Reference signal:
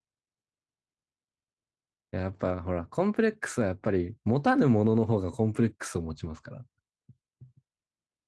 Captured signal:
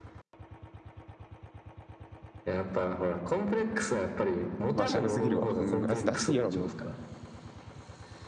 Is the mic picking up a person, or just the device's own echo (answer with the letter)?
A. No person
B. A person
B